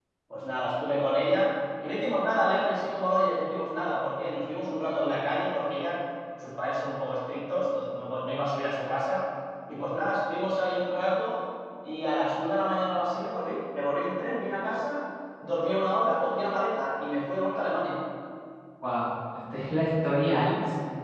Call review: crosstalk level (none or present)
none